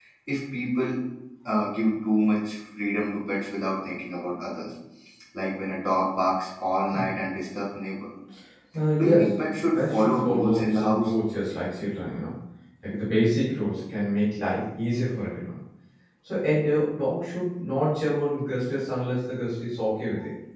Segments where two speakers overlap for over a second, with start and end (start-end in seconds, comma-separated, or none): 9.0-11.1